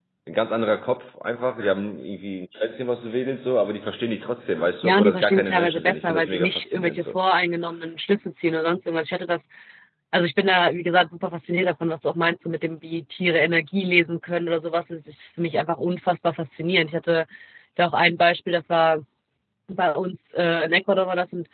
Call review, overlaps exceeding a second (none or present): present